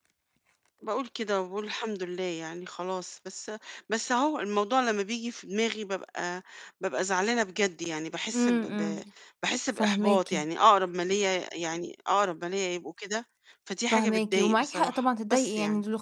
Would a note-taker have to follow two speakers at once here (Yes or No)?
Yes